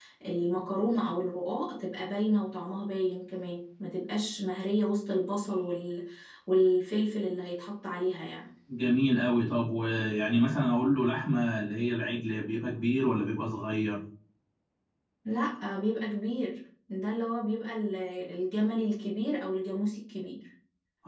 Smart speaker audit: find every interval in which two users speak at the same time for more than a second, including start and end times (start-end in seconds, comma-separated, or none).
none